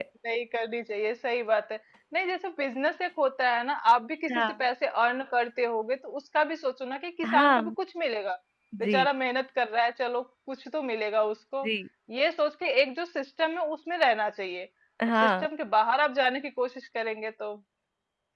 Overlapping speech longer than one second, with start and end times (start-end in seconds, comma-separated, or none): none